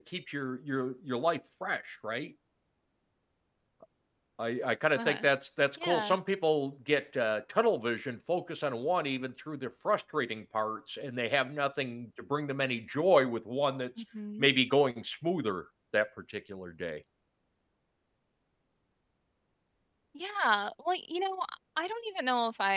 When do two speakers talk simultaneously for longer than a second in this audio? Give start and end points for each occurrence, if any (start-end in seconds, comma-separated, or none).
none